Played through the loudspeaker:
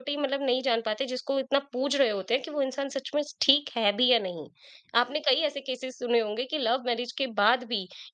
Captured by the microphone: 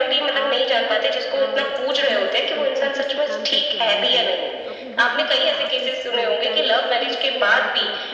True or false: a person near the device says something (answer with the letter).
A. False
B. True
B